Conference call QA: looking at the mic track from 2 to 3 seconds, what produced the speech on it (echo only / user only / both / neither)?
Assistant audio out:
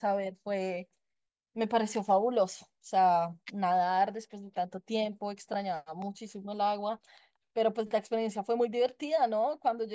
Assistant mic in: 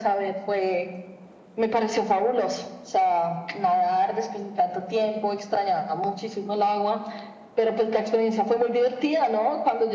echo only